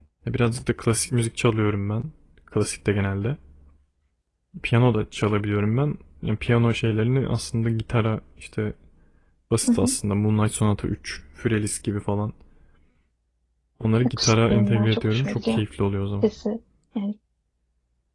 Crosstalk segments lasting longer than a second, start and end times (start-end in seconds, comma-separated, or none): 14.1-15.6